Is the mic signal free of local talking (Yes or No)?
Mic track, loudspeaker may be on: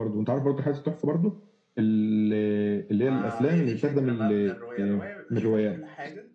No